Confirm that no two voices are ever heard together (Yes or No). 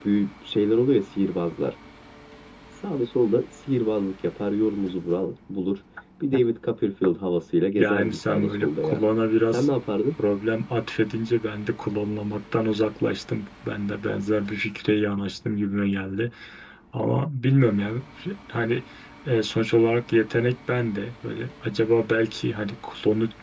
No